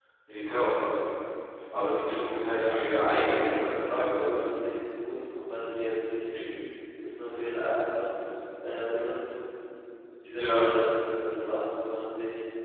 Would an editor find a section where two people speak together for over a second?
Yes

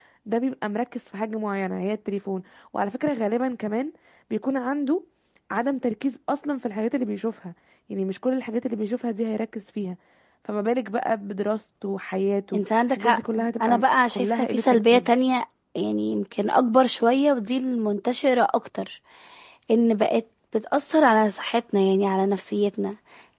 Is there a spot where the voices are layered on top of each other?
Yes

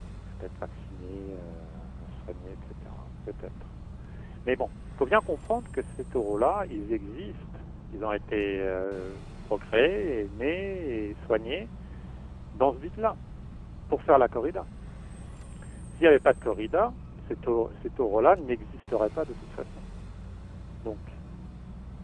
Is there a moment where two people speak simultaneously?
No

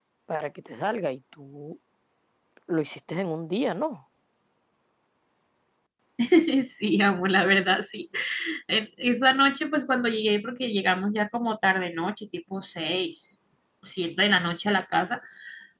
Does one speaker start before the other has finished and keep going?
No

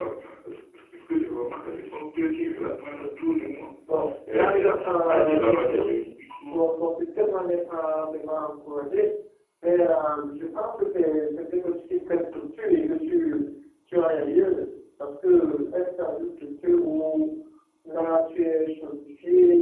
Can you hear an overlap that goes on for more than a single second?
Yes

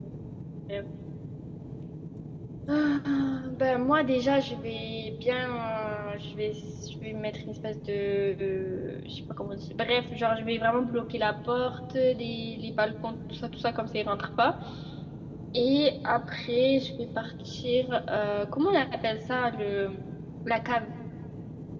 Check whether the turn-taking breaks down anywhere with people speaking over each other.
No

